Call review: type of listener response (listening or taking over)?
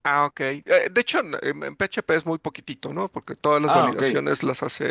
listening